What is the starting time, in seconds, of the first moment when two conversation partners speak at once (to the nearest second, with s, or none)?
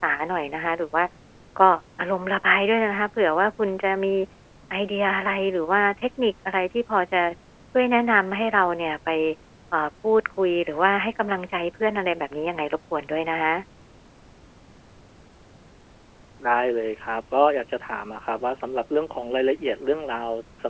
none